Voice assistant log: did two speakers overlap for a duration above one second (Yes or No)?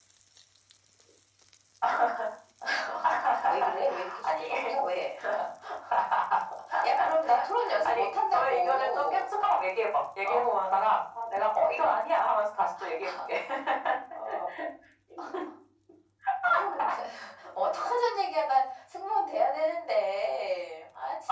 Yes